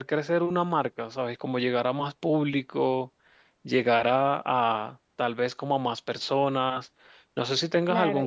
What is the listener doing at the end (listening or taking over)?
taking over